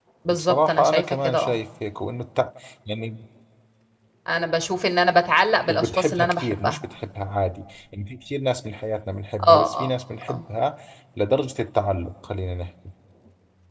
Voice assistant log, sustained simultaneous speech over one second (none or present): present